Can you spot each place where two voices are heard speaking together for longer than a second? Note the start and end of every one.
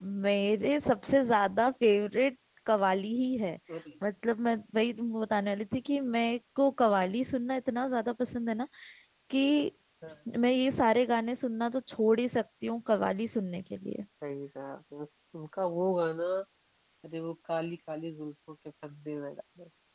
none

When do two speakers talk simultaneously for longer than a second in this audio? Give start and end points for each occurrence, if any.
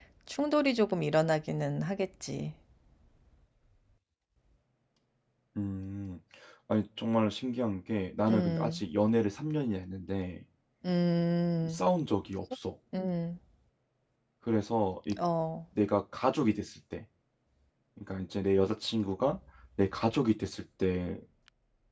none

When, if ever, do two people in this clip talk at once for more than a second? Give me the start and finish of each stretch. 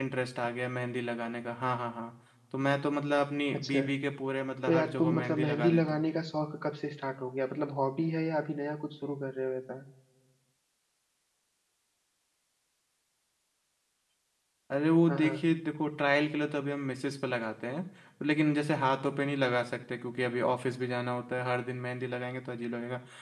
4.7-6.0

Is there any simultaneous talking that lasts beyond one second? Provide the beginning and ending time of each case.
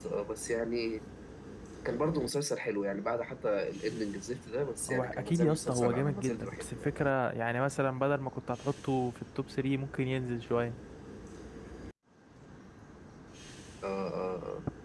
4.9-6.9

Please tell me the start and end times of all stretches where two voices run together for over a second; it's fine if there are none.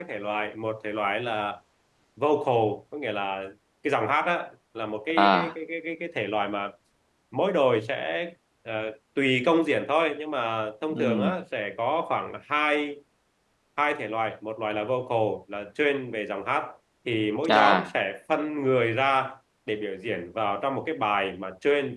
none

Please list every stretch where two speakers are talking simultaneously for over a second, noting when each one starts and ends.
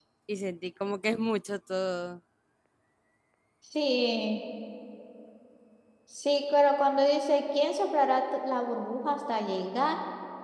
none

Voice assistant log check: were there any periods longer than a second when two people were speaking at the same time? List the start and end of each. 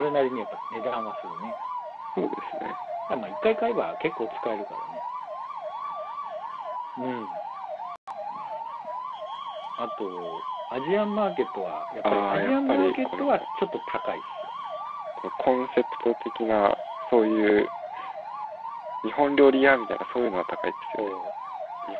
12.1-13.4

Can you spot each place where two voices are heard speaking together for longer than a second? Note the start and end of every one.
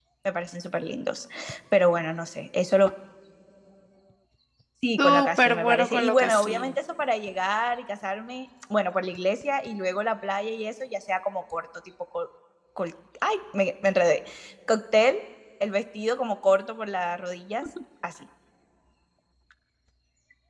5.0-6.7

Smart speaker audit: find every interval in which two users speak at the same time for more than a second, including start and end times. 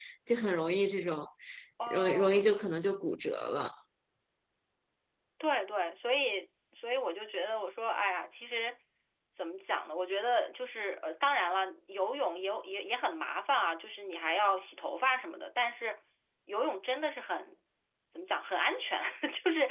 none

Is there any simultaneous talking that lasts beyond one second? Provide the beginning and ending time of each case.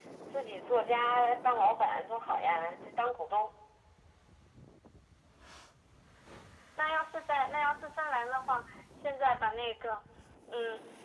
none

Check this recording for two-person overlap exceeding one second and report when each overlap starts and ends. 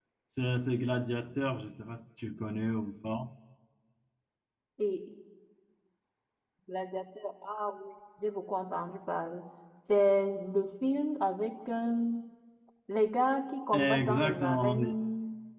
13.7-14.9

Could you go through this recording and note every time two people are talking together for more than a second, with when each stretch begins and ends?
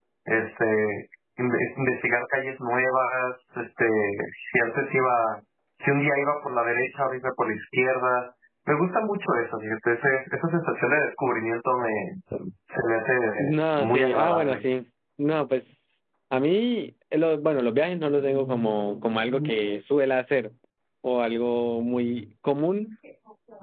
13.4-14.6

